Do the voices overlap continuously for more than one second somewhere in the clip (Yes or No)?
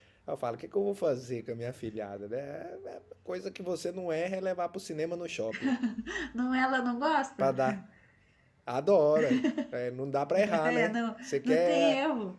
Yes